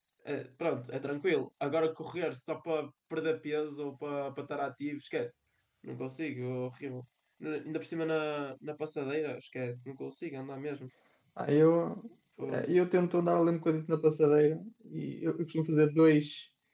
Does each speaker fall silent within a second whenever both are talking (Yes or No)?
Yes